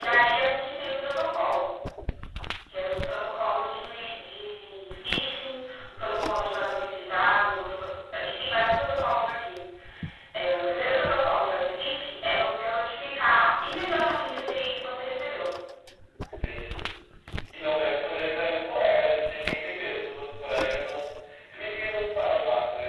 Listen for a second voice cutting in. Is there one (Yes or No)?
No